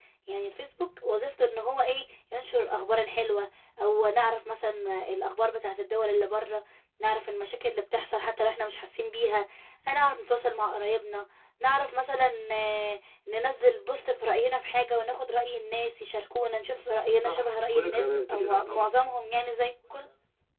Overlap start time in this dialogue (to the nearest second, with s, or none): 17 s